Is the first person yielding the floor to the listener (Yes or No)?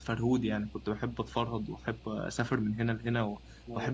No